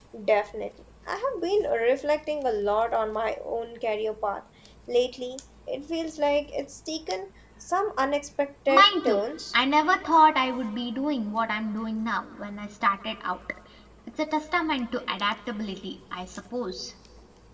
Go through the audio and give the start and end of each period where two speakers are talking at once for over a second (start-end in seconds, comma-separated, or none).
none